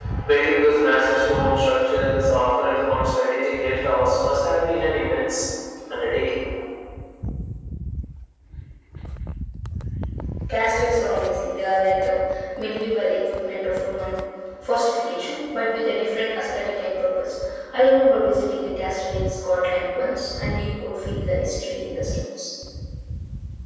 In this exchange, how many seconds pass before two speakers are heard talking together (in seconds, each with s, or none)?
none